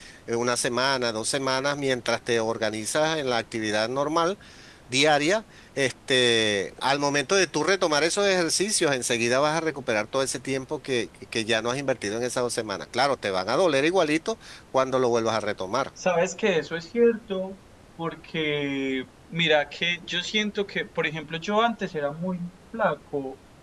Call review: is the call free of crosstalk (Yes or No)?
Yes